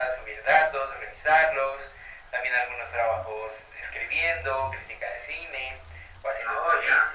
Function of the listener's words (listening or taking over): listening